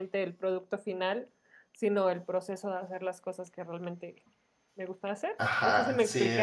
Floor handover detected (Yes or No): Yes